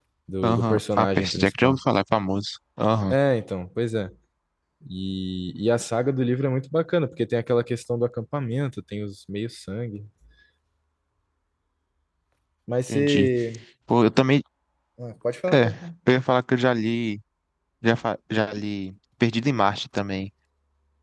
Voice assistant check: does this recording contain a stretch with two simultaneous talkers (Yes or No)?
Yes